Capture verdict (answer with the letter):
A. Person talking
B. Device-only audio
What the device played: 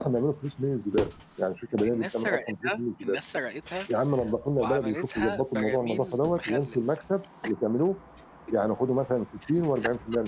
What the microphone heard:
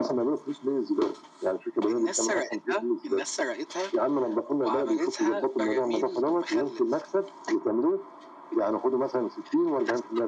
B